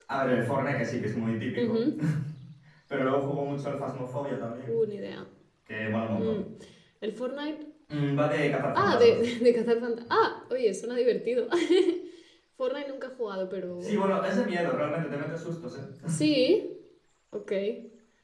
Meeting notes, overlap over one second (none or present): none